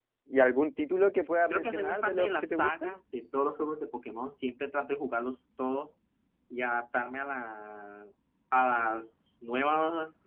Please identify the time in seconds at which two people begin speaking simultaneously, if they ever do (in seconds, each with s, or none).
1.5 s